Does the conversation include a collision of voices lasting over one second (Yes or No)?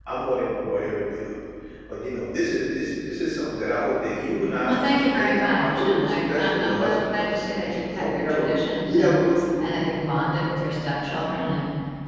Yes